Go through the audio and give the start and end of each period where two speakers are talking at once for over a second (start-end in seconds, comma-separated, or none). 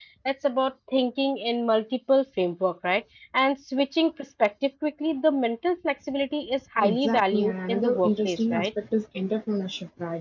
6.8-8.7